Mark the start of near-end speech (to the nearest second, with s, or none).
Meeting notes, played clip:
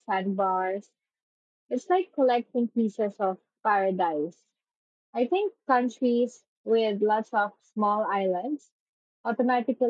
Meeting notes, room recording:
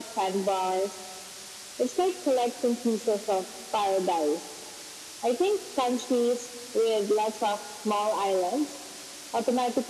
none